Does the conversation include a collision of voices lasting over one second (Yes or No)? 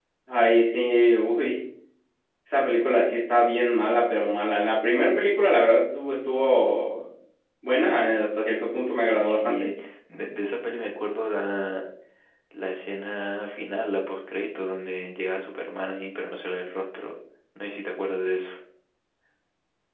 No